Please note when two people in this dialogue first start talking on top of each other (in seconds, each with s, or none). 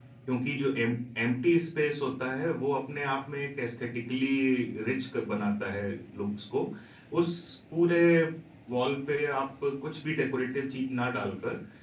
none